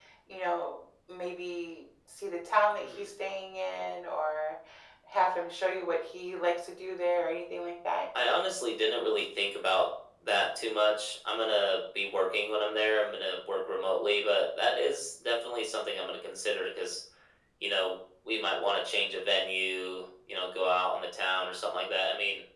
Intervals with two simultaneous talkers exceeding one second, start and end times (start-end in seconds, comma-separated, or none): none